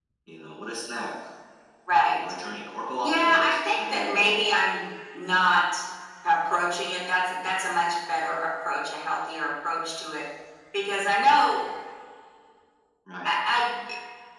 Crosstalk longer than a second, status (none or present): present